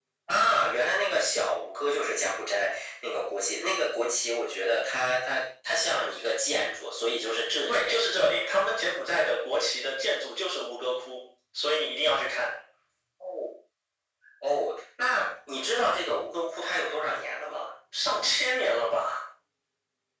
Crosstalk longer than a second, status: none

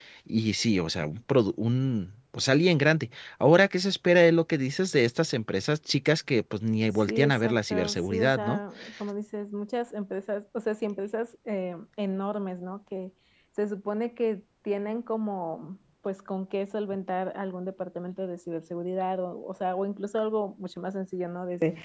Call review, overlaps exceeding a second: present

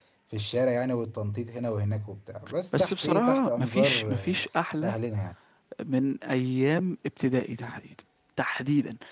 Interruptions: present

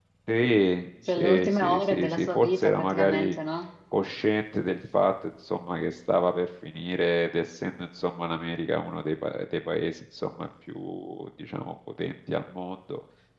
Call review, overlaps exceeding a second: present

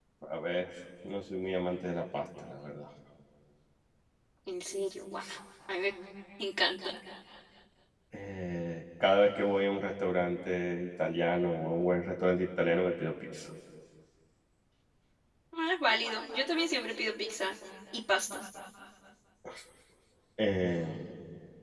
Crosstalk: none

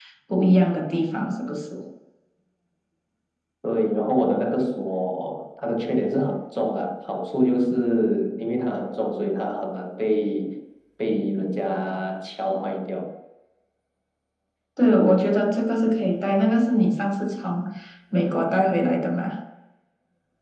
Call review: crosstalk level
none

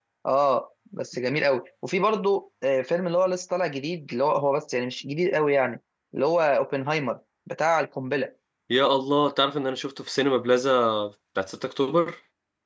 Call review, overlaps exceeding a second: none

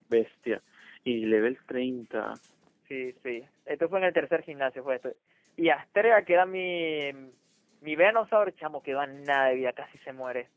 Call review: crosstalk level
none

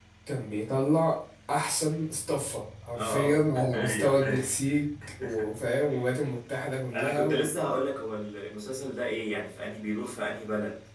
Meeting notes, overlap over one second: present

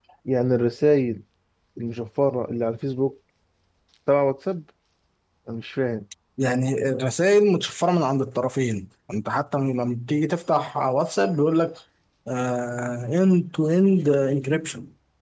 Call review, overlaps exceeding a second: none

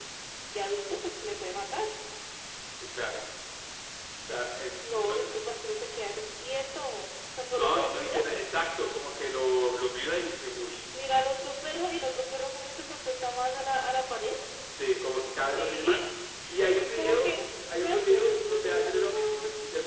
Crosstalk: present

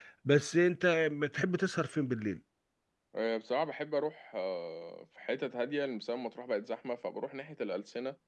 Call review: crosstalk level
none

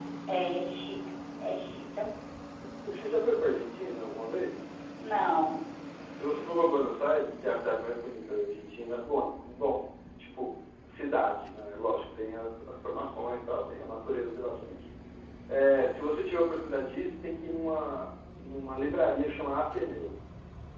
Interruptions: none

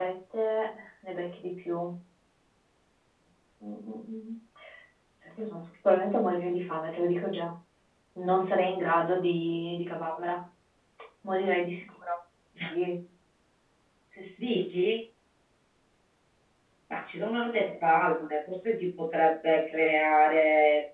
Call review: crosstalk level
none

